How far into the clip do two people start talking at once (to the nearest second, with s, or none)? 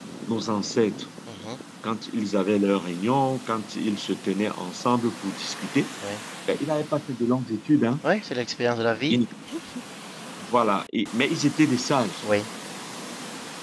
none